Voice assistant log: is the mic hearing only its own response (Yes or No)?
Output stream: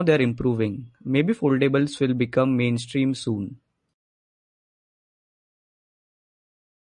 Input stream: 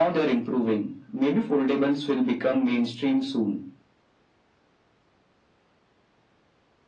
Yes